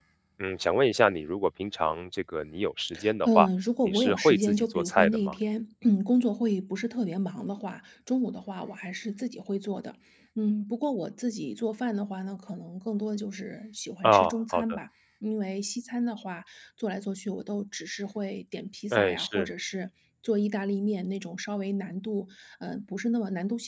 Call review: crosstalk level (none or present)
present